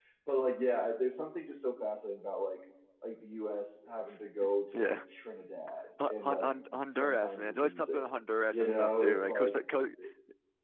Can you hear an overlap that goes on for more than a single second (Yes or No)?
Yes